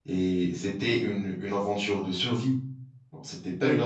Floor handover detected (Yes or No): No